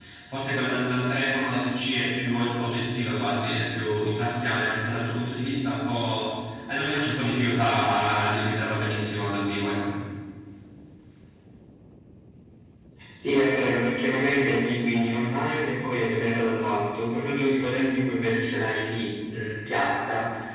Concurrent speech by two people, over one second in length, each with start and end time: none

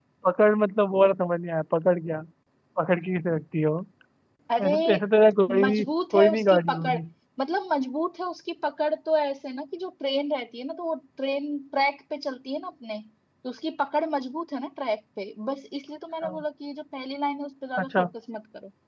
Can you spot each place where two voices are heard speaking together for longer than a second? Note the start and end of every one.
5.6-7.0

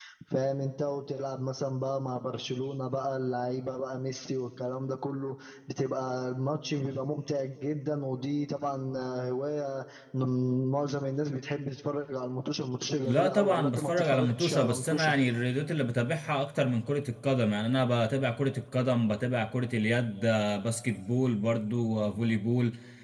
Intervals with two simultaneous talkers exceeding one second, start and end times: 13.0-15.1

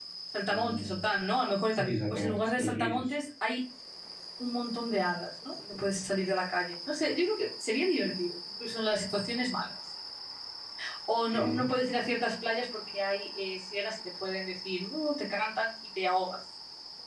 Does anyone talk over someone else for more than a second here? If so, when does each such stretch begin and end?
1.7-3.1

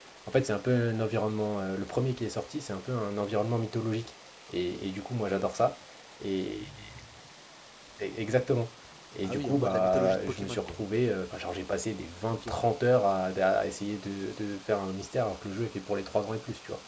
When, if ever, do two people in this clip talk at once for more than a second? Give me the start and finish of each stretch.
9.2-10.8

